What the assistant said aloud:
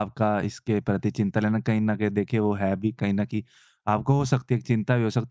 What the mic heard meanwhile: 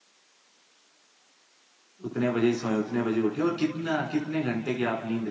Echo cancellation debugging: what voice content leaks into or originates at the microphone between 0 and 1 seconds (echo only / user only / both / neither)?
neither